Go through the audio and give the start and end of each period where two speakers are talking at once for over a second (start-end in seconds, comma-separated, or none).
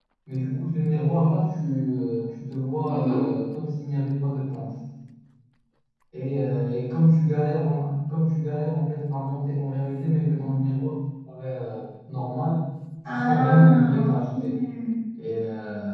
13.0-14.6